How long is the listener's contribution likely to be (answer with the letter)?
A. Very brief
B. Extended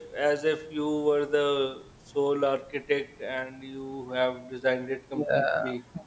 B